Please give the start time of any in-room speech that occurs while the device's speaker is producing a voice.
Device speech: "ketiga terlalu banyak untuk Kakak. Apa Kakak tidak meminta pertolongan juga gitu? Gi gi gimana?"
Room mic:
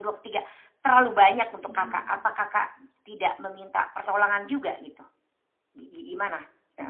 1.6 s

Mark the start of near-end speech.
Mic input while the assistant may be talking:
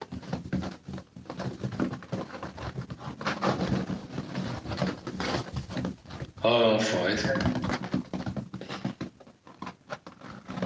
6.4 s

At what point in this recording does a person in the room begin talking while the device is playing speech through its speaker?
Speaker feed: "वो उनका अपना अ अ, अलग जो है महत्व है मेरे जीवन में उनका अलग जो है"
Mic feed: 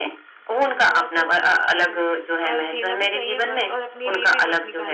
0.5 s

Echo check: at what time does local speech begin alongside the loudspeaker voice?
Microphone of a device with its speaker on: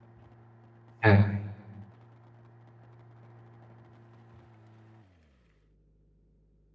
1.0 s

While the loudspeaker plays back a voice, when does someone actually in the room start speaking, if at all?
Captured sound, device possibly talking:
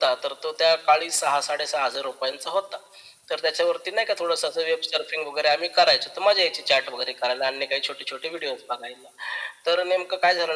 none

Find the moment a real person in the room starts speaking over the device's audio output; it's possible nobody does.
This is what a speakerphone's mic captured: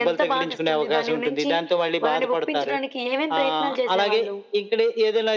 none

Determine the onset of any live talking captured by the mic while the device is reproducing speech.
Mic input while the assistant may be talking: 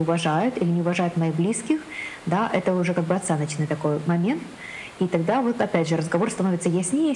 none

